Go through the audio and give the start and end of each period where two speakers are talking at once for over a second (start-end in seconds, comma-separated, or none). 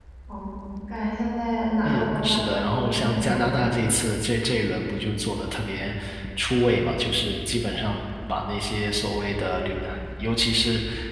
1.9-3.7